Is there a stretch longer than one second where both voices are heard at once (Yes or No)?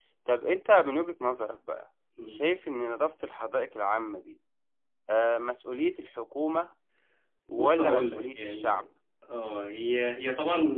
Yes